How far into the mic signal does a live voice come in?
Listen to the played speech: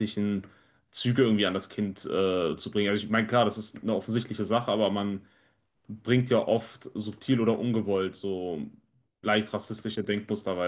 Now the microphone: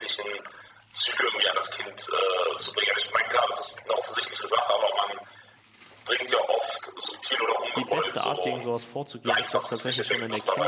7.8 s

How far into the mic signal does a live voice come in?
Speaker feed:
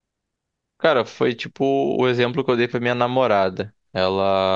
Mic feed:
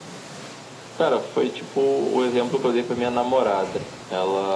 none

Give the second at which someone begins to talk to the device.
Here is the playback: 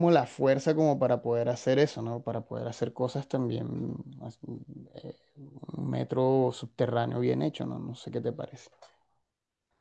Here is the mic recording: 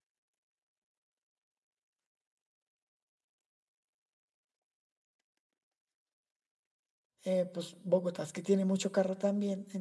7.2 s

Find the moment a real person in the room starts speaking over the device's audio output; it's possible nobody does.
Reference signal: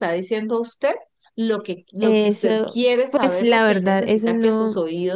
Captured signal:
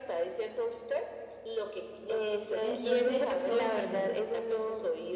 2.6 s

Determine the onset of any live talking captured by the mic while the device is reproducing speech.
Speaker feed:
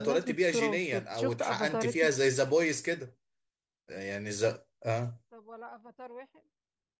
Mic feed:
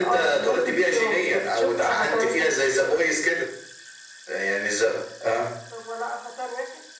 none

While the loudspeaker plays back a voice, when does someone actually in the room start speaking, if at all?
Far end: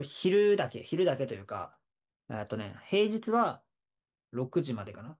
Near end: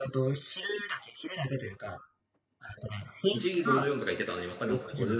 3.3 s

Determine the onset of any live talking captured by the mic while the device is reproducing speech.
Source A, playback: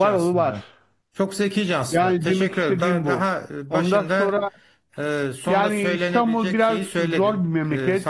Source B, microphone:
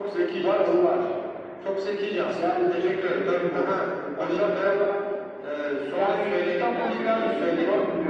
6.7 s

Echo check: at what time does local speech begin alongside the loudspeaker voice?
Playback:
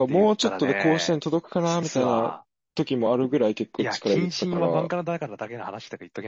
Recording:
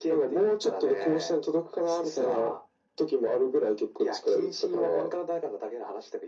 none

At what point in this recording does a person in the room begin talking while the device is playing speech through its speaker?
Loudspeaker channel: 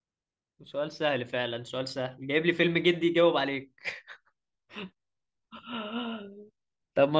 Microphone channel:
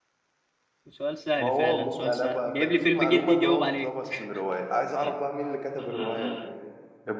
1.3 s

